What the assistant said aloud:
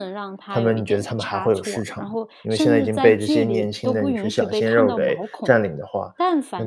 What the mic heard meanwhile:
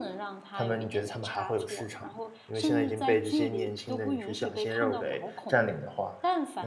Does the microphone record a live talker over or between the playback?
No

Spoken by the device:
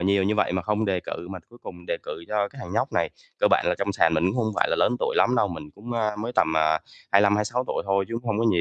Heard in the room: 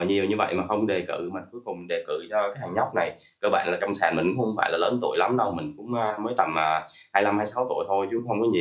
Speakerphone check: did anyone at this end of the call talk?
No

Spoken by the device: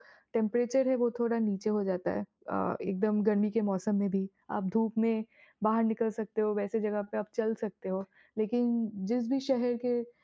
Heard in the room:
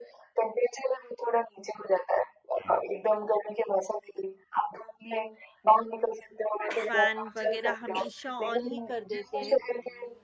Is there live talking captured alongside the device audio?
Yes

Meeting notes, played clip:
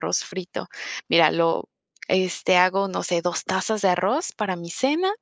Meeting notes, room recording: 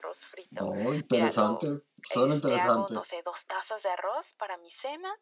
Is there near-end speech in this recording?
Yes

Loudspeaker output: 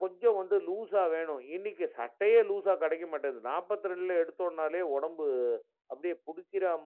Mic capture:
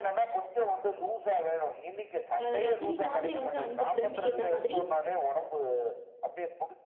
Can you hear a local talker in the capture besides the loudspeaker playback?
Yes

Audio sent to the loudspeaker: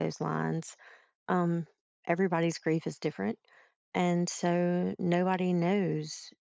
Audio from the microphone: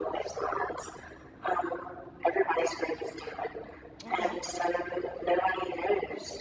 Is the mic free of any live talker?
No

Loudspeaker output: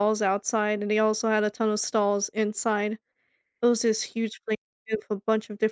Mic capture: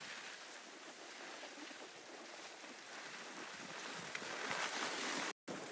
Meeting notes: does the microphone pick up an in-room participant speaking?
No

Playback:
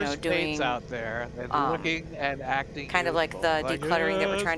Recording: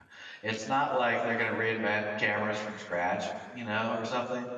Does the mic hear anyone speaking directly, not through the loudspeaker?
Yes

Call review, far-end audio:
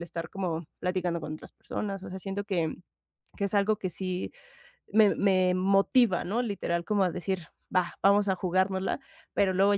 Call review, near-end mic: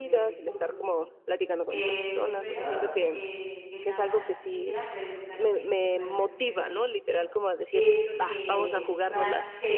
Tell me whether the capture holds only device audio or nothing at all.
No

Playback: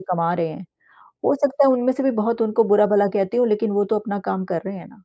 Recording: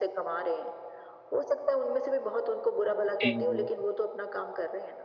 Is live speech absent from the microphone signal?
No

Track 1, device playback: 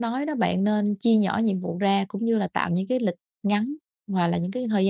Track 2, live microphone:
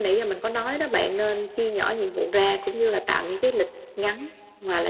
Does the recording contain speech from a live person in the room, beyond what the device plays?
No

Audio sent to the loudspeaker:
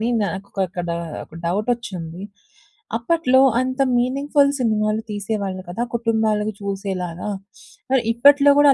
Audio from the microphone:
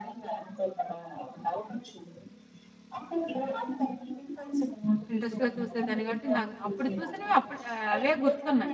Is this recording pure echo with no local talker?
No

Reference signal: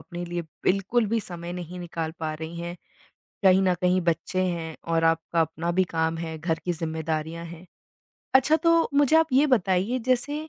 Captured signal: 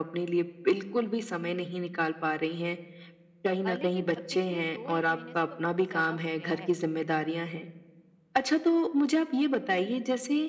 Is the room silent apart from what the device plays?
No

